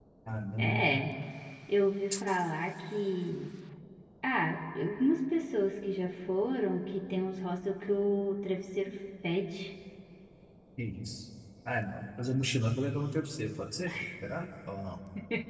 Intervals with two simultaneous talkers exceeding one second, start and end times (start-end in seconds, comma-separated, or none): none